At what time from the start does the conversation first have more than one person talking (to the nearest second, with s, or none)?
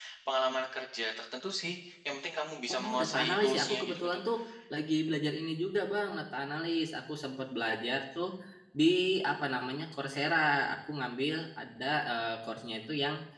3 s